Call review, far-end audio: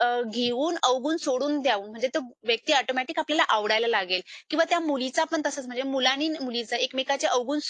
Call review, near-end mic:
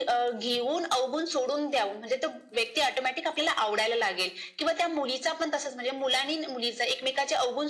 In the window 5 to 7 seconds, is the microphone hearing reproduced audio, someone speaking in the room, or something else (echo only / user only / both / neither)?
echo only